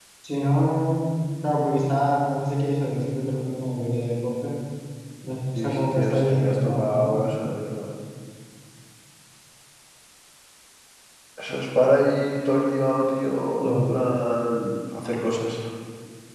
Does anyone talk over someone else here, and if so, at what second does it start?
5.5 s

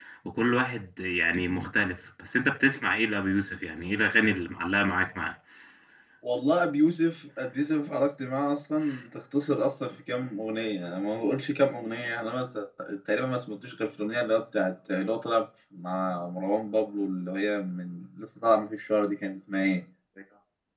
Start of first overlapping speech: none

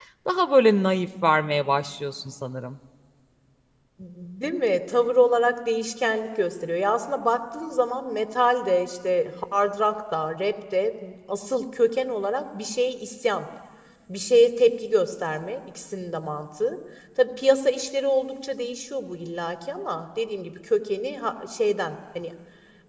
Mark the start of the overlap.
none

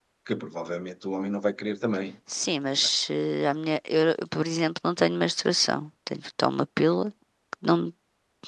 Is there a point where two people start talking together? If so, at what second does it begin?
none

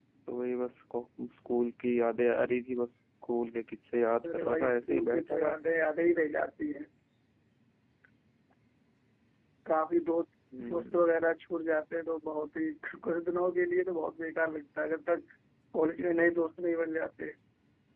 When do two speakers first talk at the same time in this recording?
4.3 s

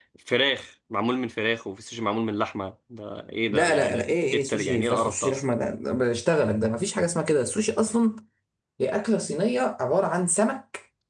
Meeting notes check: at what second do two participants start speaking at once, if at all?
3.5 s

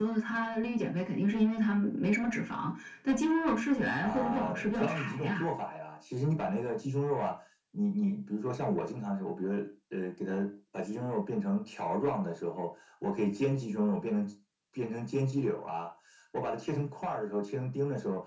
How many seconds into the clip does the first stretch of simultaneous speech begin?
4.0 s

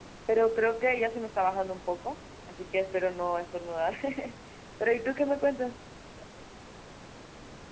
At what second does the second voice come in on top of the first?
none

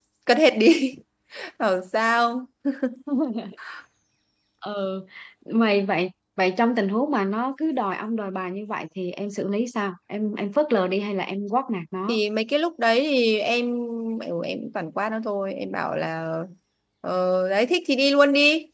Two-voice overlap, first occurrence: none

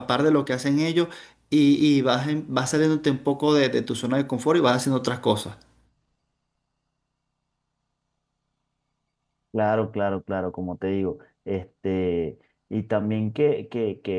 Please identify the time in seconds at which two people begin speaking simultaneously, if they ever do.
none

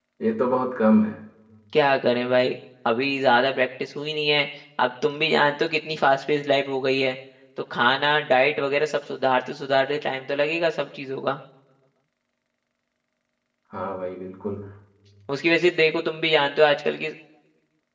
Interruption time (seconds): none

